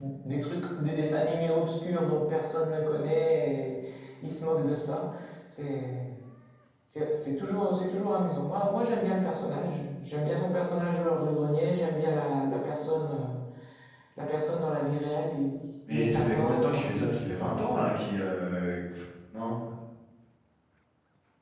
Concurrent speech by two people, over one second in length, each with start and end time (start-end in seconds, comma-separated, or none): 15.9-17.3